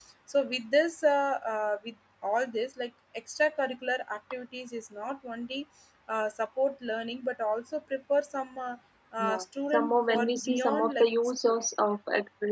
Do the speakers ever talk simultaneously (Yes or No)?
Yes